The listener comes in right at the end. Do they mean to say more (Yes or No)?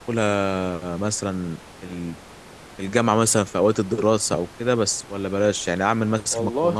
No